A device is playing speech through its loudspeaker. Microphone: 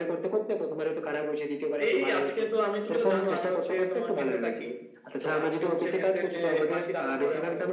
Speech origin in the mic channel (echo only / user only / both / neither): echo only